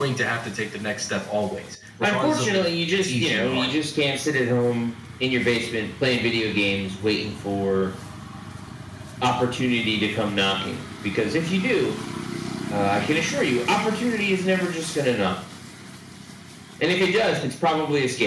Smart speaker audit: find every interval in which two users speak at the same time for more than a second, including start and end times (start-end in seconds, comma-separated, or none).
2.0-3.7